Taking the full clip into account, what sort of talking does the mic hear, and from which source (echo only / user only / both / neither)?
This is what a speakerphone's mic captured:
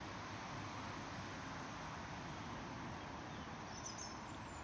neither